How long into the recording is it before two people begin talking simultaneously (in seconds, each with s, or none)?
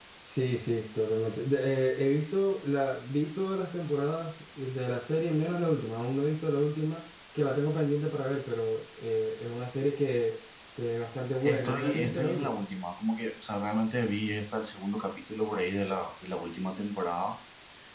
11.4 s